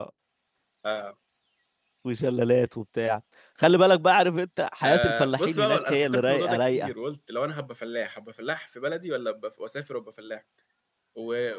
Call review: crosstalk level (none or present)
present